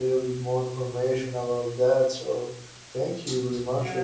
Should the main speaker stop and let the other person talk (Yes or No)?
Yes